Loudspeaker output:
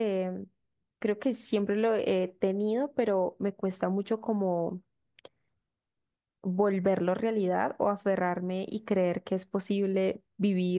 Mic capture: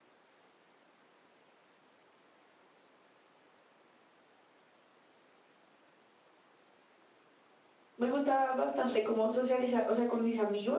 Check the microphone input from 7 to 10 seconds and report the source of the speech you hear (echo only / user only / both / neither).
user only